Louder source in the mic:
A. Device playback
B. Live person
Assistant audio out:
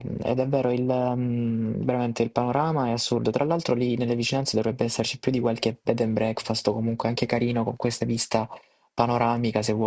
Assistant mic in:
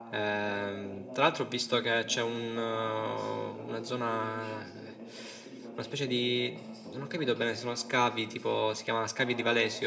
B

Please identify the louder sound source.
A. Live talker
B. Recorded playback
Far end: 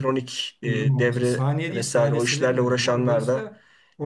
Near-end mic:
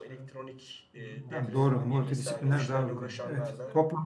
A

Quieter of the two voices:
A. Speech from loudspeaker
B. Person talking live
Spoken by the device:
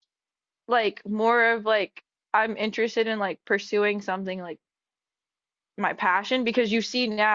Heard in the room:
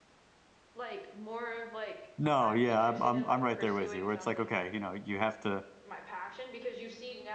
A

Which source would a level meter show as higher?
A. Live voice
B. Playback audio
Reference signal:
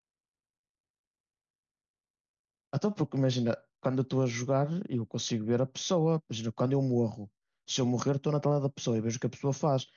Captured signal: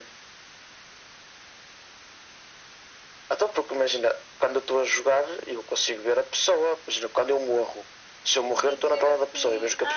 B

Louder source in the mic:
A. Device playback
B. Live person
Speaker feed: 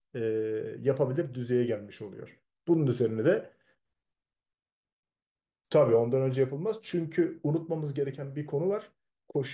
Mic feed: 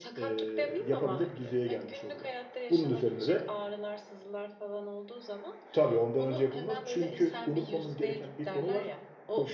A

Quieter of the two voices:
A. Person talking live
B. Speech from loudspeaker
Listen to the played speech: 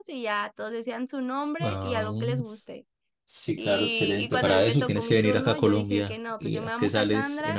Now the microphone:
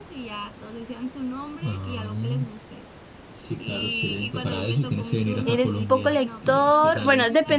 B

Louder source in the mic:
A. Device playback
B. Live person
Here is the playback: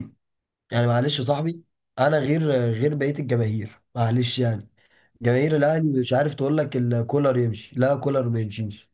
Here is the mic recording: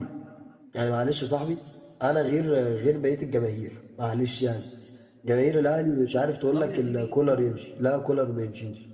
A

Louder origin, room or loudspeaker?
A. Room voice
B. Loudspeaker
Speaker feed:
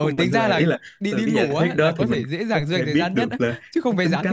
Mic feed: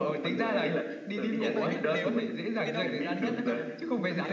B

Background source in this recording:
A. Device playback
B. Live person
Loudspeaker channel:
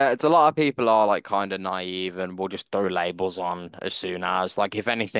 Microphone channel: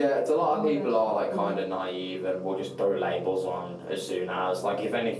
B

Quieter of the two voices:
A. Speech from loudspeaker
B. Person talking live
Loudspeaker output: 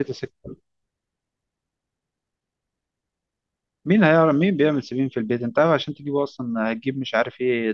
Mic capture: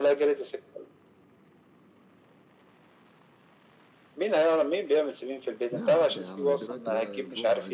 B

